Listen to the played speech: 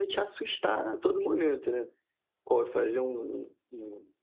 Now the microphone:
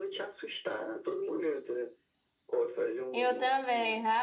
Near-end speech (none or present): present